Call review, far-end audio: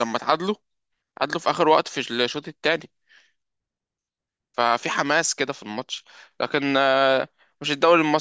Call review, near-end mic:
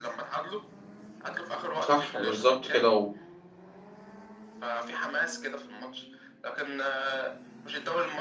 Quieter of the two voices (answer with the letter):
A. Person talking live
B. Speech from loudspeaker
B